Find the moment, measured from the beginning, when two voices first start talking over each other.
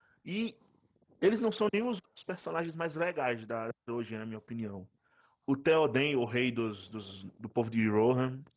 none

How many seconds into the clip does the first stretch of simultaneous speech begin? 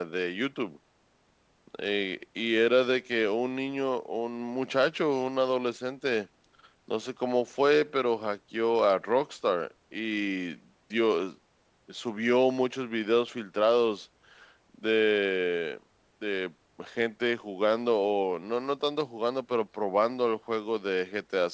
none

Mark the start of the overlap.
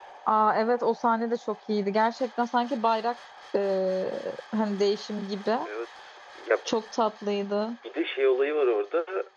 none

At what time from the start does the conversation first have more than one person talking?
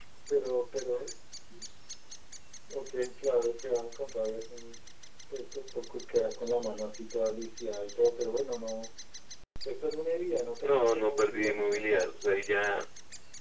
11 s

